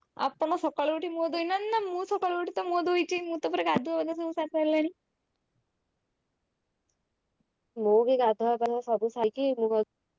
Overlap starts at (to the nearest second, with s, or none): none